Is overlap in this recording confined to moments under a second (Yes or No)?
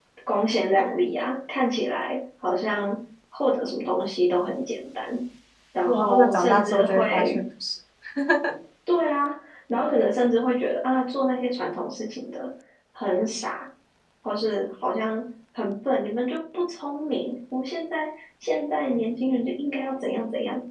No